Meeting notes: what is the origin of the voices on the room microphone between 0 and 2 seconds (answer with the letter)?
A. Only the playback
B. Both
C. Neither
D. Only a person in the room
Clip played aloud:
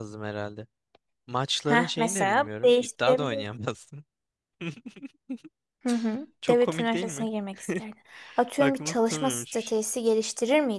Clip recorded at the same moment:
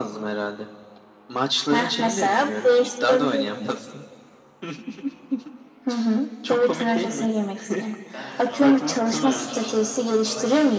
A